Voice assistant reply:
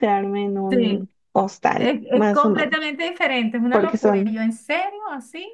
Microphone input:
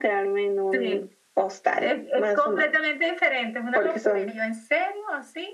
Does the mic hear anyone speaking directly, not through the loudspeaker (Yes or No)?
No